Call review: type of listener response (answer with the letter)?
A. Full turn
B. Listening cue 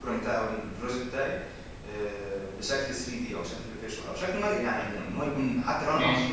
B